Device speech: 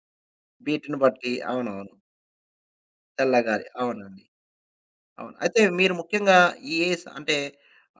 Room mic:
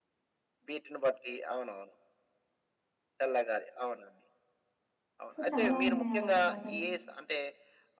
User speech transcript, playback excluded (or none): సో, చాలా ఉన్నాయి అలాంటి పాటలు.